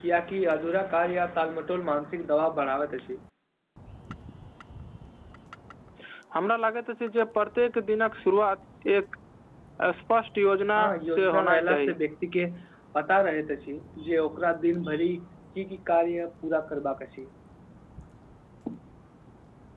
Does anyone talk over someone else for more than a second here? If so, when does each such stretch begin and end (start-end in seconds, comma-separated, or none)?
10.8-12.0